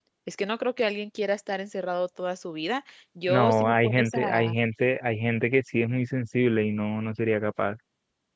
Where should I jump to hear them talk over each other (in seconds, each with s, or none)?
3.3 s